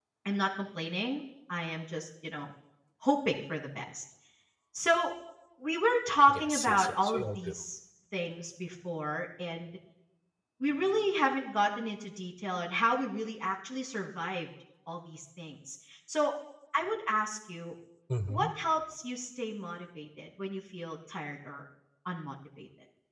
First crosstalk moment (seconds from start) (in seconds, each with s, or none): 6.3 s